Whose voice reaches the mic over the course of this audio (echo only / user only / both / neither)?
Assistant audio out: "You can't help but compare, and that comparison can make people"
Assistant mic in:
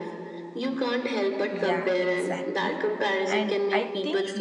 both